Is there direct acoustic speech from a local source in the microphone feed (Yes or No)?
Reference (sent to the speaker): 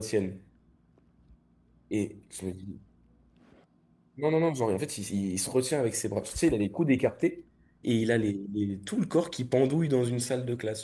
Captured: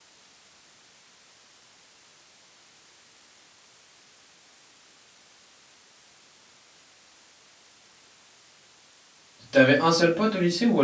Yes